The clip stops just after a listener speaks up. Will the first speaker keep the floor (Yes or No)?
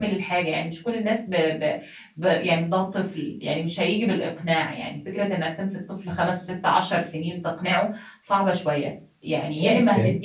Yes